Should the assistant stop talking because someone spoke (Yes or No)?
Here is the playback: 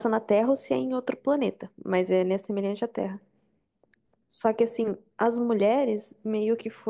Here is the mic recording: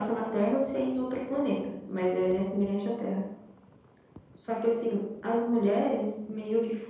No